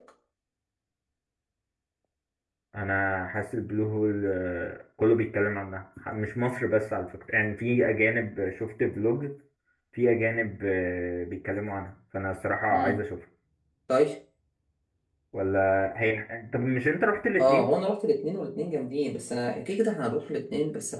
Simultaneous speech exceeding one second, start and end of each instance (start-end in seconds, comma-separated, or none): none